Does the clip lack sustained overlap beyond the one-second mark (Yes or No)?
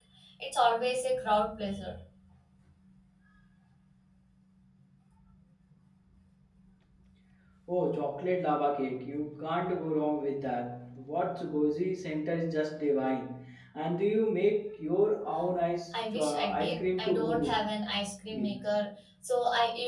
No